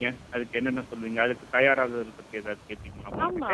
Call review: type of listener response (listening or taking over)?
taking over